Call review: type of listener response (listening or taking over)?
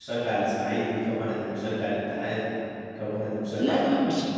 taking over